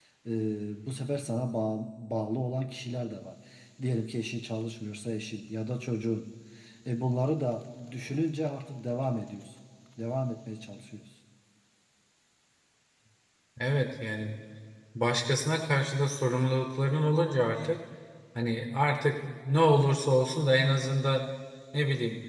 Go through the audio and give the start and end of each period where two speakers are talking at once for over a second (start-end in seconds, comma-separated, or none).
none